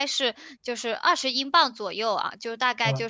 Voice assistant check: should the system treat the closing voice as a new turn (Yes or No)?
No